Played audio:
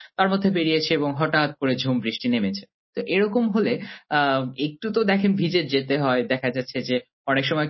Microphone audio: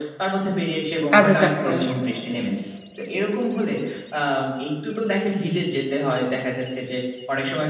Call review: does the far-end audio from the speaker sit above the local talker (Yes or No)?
No